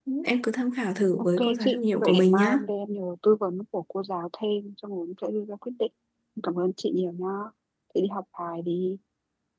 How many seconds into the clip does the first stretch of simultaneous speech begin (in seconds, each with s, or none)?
1.4 s